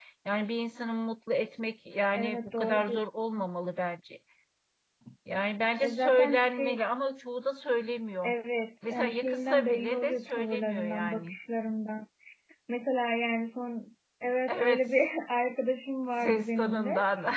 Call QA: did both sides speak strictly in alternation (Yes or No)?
No